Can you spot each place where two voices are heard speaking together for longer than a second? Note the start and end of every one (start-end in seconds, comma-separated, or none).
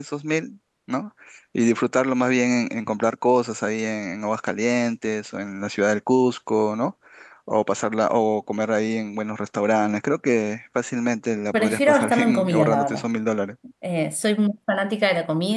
11.5-13.0